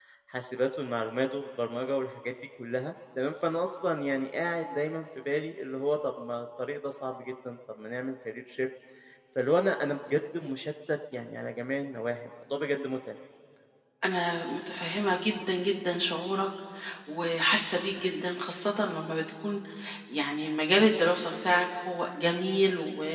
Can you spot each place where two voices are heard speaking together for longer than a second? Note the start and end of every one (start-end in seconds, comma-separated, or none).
none